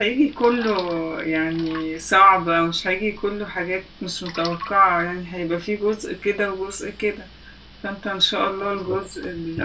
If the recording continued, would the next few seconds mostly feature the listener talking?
No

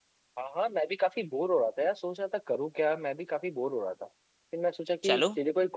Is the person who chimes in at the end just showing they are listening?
Yes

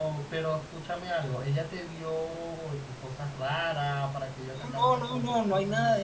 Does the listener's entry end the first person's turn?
Yes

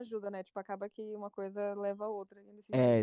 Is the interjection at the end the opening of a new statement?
Yes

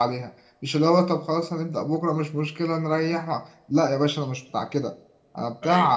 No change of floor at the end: Yes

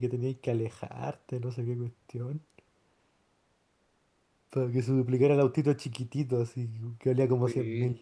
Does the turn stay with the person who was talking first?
No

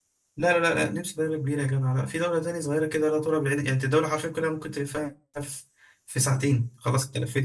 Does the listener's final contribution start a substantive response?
No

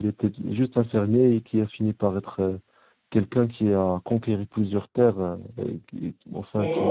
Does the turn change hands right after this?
Yes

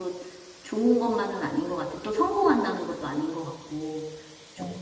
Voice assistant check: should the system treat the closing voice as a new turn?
Yes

